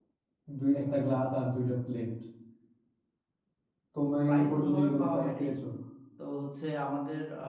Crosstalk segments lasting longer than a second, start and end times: 4.3-5.5

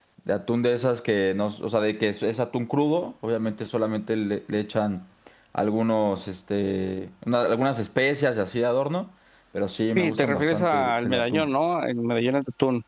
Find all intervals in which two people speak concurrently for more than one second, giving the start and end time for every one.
10.0-11.5

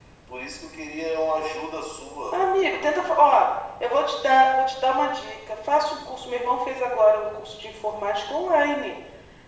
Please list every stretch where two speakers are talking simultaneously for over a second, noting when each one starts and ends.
none

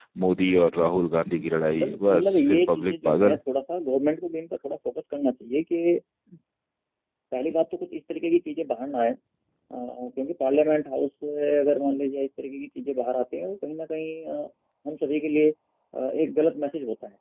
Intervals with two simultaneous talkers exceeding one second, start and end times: 1.8-3.4

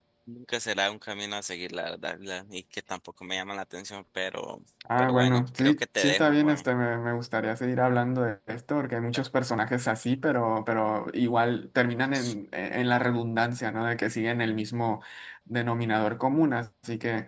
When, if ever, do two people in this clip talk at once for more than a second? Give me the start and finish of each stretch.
5.0-6.6

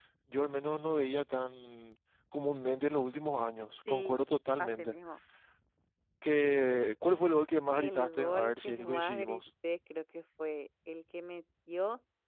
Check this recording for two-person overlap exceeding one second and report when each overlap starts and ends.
7.8-9.4

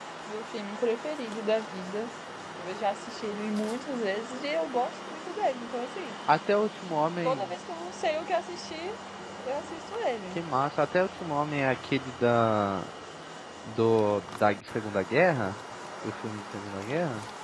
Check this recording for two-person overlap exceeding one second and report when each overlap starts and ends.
none

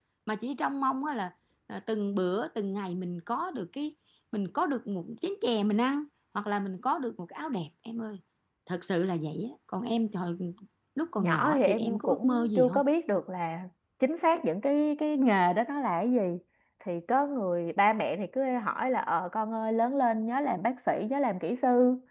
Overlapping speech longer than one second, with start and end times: 11.2-12.8

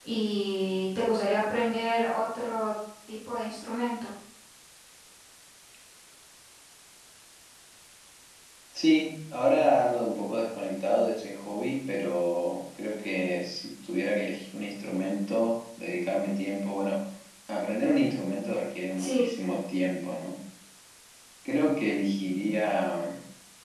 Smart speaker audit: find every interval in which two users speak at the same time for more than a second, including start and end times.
none

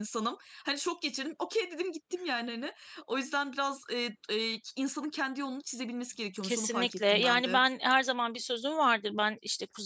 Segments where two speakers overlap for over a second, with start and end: 6.4-7.6

